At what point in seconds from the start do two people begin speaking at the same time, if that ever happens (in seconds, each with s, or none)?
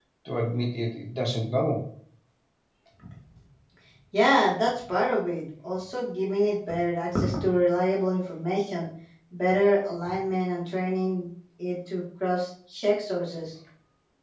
none